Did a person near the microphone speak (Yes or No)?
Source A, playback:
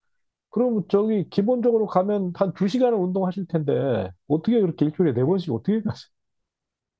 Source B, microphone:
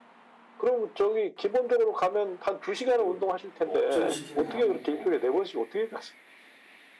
Yes